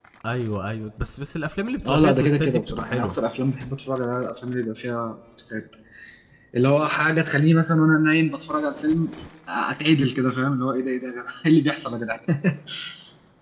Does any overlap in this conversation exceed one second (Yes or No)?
Yes